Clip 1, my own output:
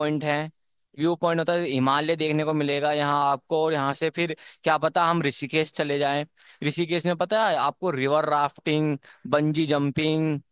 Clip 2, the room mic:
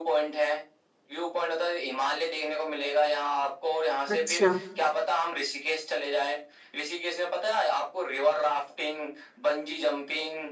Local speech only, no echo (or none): अच्छा